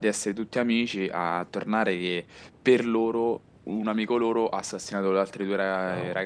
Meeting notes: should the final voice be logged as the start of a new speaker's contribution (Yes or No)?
Yes